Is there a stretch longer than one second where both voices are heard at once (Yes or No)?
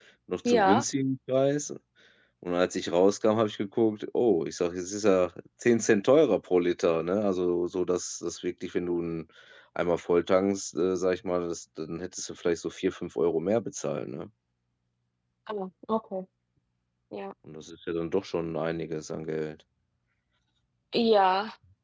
No